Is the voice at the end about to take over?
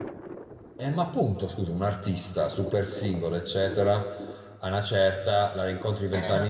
No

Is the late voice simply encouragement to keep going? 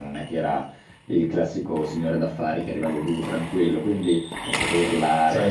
Yes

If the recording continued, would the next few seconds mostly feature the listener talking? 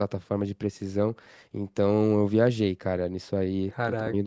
No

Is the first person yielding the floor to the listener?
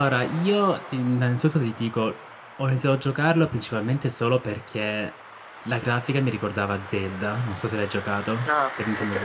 Yes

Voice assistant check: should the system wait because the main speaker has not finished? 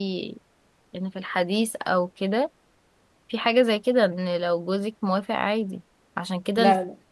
Yes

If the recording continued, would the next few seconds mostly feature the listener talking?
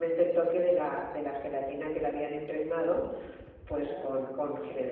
No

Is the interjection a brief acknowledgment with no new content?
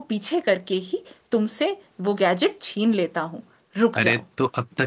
No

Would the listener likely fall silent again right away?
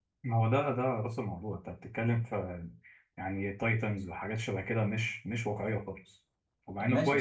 No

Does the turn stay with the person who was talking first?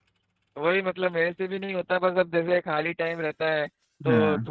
Yes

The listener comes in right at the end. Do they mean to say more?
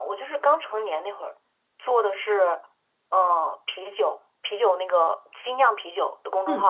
Yes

